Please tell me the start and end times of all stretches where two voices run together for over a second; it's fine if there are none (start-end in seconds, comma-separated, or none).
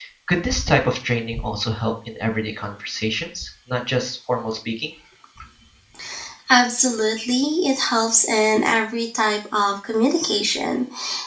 none